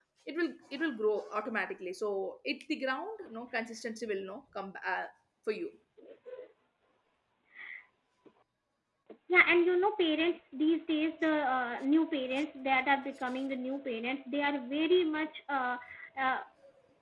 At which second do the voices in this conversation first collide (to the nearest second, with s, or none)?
none